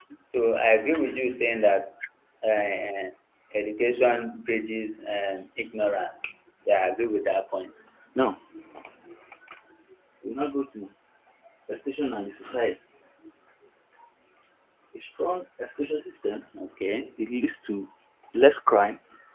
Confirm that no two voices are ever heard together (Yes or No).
Yes